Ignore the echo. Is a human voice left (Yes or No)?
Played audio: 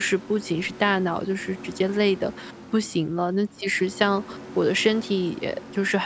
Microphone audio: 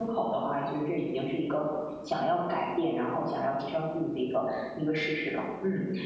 Yes